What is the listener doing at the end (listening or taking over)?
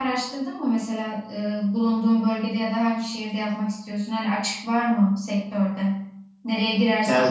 listening